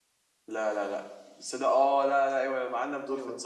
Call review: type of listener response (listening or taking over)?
taking over